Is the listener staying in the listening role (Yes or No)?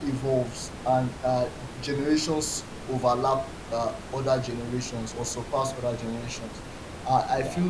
Yes